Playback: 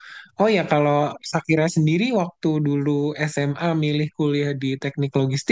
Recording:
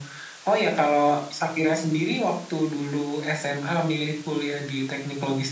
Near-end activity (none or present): none